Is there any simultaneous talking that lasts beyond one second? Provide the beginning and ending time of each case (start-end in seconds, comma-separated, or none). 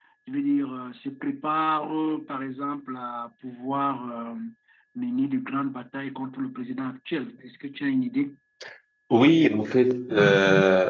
none